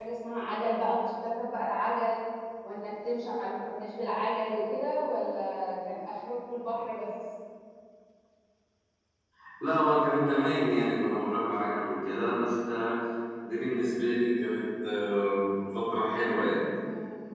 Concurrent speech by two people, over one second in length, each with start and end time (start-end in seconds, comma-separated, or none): none